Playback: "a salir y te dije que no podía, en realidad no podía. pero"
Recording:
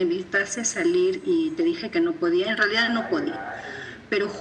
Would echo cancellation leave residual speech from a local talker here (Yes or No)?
Yes